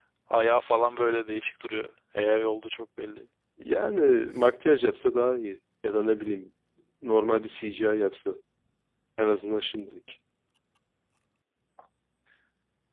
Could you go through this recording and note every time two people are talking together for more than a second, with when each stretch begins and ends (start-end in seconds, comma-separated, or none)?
none